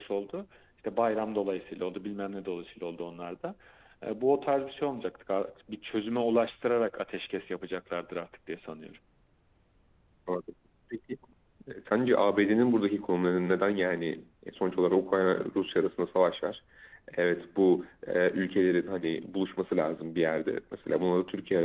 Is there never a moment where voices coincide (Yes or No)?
Yes